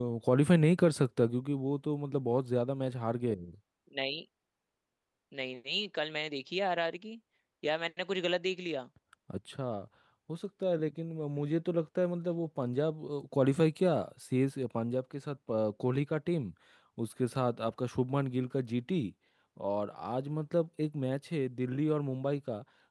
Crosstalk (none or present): none